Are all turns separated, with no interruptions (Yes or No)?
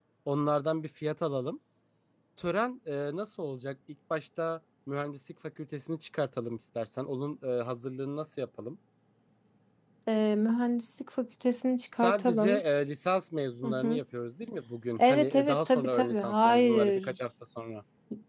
No